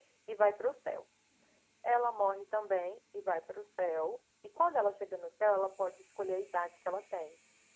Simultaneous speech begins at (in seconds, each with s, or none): none